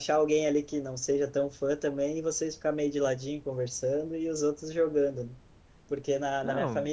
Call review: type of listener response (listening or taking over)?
listening